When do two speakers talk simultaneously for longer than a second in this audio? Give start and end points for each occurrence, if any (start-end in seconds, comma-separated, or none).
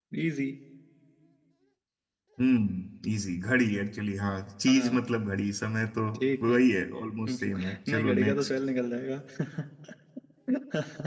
7.3-8.5